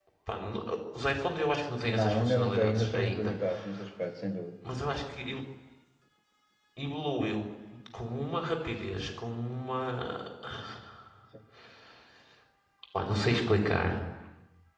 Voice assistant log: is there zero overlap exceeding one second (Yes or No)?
No